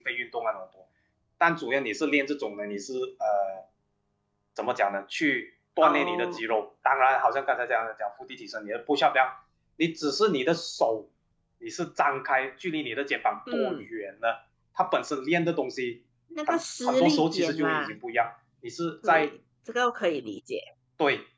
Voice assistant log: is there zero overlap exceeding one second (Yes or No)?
No